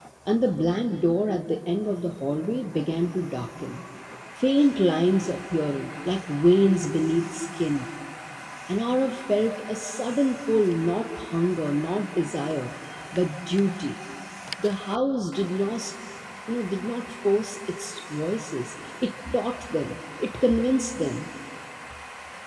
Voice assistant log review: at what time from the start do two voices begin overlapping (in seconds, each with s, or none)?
none